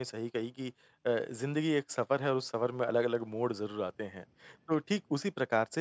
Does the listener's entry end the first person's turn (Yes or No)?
No